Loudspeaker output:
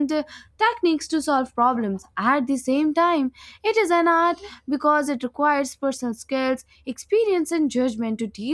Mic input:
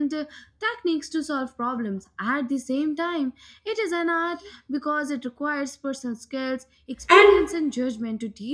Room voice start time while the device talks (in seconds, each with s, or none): 7.1 s